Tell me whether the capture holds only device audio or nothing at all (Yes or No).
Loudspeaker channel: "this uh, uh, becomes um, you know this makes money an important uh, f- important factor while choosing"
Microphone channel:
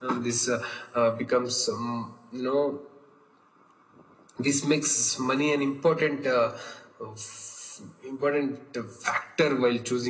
Yes